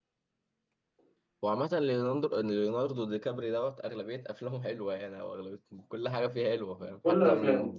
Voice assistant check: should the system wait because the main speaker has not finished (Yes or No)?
Yes